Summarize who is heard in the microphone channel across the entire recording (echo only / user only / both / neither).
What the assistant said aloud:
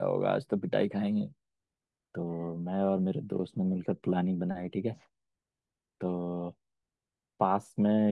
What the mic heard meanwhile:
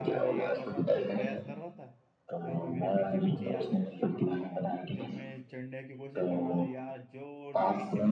both